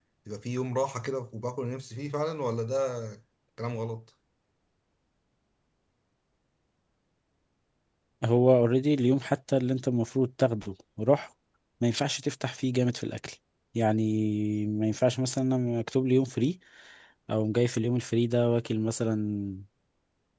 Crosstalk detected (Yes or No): No